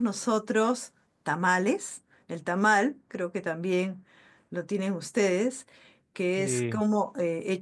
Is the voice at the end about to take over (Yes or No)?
No